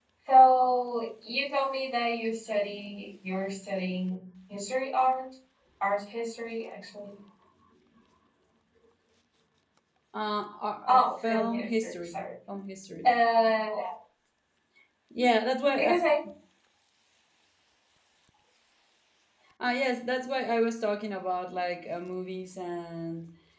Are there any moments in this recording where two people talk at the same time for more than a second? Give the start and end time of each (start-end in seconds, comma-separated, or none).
10.9-12.2